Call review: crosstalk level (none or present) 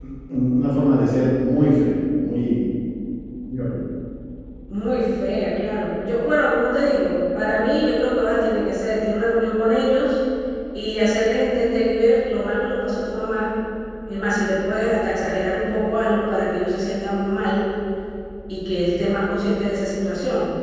none